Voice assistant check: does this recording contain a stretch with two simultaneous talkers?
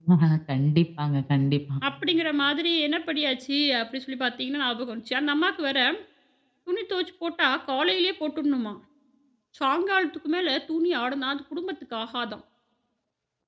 No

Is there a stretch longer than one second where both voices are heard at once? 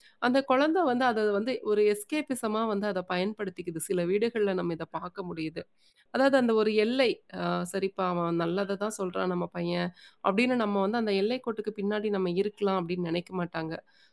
No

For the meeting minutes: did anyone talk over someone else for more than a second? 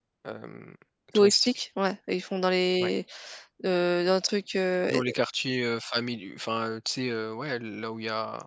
No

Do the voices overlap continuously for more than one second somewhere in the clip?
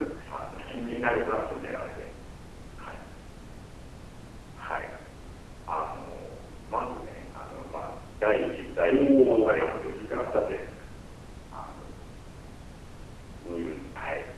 Yes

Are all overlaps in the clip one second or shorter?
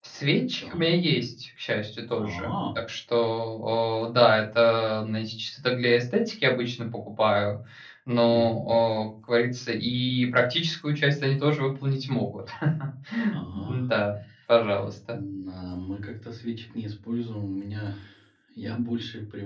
Yes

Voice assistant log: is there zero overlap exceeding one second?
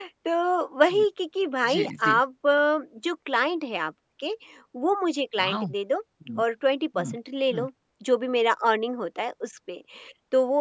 Yes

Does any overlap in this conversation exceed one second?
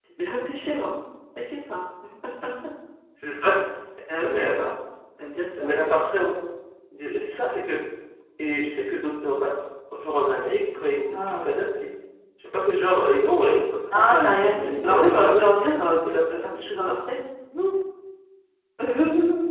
Yes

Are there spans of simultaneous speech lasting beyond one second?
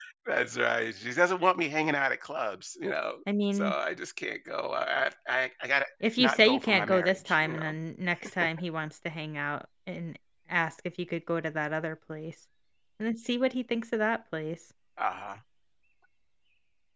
Yes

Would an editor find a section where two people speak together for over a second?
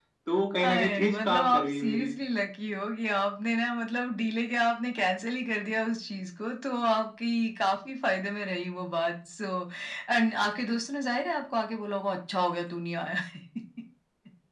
Yes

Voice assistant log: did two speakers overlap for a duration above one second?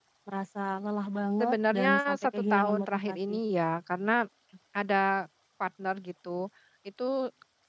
Yes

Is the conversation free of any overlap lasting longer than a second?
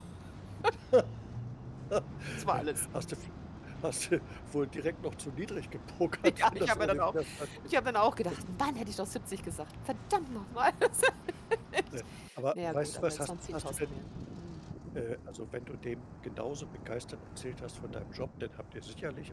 No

